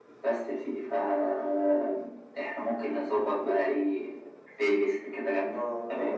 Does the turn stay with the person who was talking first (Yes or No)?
No